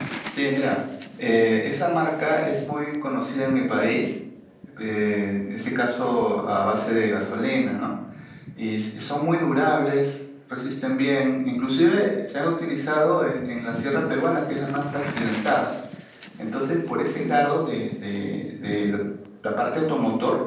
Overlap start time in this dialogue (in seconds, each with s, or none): none